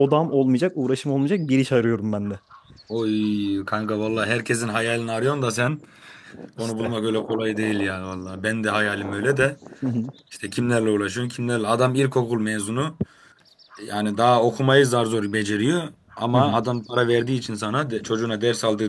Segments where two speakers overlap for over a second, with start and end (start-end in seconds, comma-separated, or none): none